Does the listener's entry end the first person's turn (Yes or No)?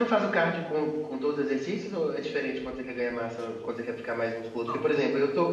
No